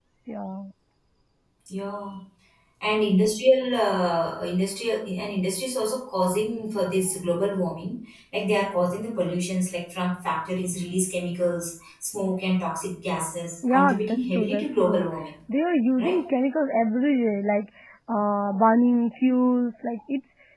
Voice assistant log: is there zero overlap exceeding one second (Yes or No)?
No